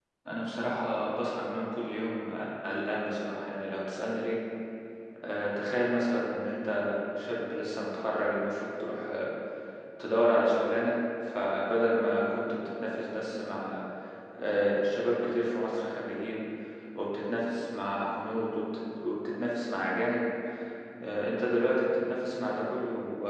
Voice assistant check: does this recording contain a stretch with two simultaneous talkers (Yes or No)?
No